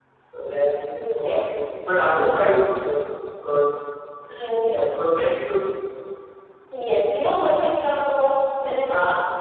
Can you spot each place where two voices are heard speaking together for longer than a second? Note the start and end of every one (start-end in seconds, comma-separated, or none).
none